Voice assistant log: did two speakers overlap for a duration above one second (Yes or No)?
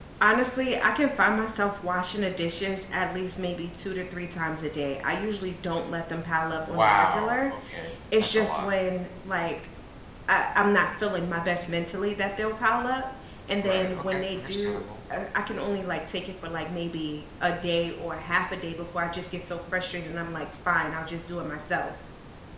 Yes